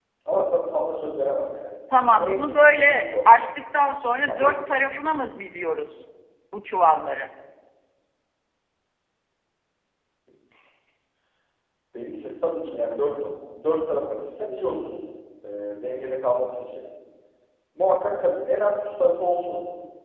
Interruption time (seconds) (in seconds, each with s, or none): 1.9 s